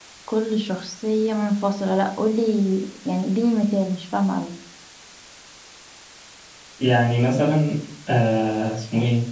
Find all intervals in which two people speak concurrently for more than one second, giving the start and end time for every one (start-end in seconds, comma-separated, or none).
none